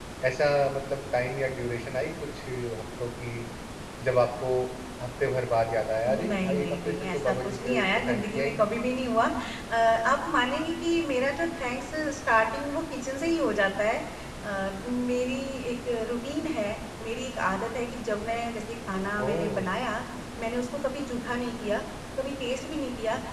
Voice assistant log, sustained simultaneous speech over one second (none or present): present